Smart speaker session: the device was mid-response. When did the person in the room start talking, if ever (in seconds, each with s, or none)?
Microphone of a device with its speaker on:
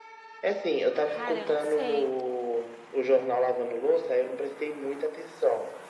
1.1 s